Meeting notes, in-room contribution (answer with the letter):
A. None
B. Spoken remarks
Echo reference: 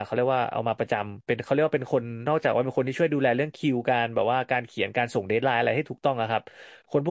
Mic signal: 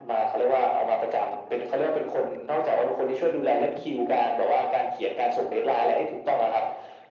A